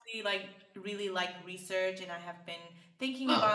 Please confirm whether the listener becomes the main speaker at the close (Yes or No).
No